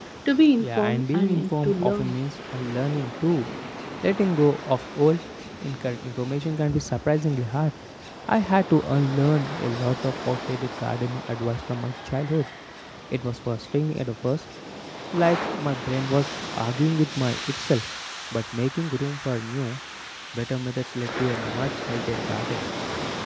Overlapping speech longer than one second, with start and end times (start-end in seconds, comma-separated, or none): 0.6-2.2